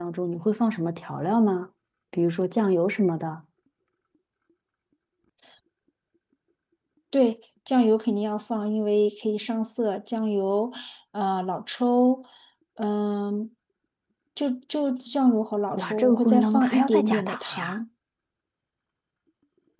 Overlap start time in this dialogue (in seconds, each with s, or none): 15.7 s